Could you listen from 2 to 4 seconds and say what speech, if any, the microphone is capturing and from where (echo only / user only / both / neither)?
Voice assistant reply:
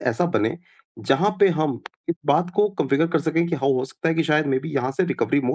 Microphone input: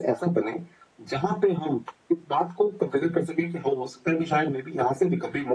echo only